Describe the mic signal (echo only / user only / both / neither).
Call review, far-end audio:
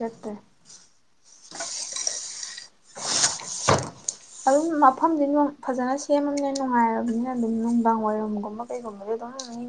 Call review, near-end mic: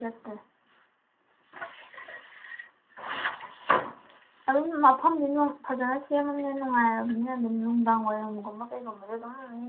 echo only